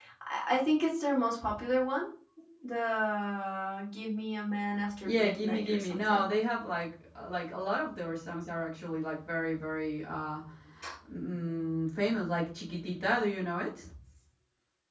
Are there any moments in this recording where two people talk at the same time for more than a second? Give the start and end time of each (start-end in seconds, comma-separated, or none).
5.0-6.3